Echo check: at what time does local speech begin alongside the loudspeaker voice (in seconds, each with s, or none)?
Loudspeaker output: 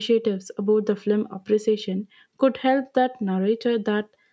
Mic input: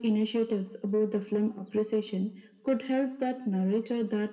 none